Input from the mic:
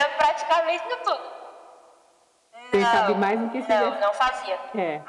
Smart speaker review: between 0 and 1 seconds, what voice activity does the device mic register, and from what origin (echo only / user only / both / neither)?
echo only